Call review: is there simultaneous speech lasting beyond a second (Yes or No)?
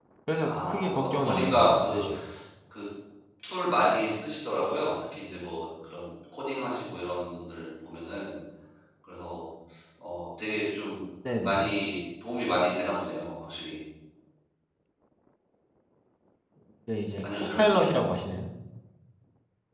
Yes